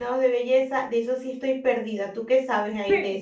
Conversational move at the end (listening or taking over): taking over